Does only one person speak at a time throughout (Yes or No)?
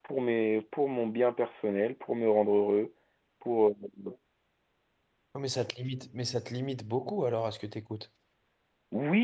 Yes